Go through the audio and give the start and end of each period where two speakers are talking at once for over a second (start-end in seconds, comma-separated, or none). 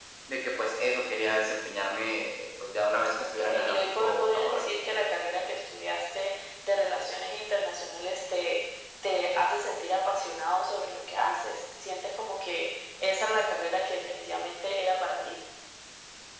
3.4-4.6